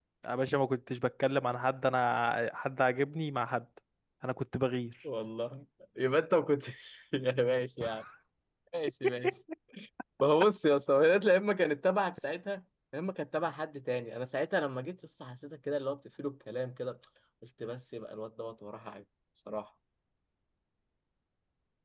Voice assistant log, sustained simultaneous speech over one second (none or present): none